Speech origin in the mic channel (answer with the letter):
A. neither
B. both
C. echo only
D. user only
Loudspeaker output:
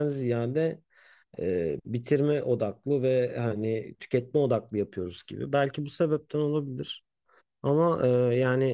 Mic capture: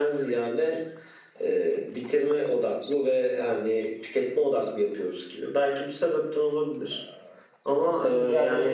B